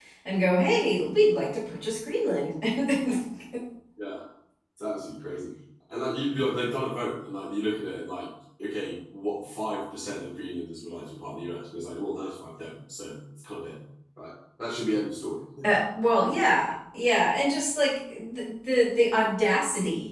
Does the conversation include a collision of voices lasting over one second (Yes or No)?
No